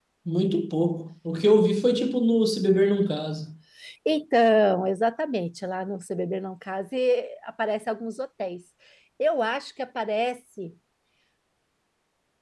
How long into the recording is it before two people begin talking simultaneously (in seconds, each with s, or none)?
none